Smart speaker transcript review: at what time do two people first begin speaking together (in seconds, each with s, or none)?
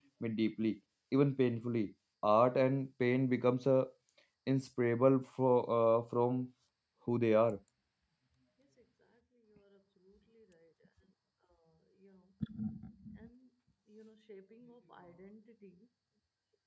none